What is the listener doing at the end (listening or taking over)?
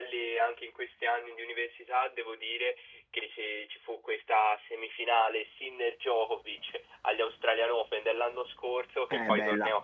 listening